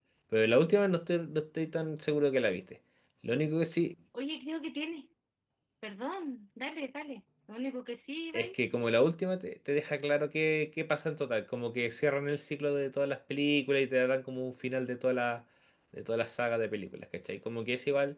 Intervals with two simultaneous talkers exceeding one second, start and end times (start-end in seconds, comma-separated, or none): none